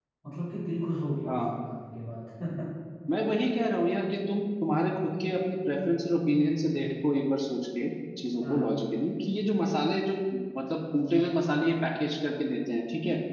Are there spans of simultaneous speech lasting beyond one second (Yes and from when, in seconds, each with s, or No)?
No